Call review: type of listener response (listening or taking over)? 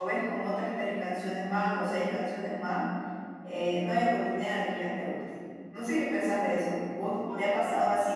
listening